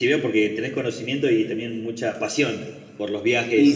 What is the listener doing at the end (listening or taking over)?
taking over